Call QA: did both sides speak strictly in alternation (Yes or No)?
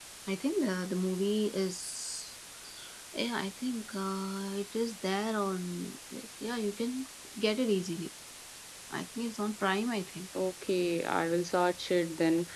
Yes